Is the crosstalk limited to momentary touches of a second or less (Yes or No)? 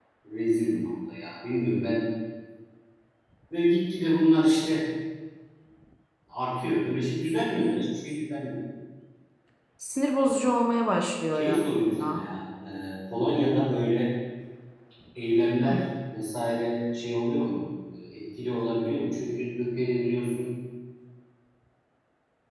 Yes